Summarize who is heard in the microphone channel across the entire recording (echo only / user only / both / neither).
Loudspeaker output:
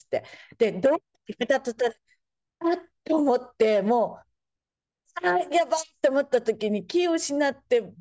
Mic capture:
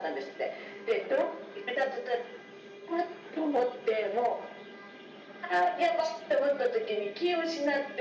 echo only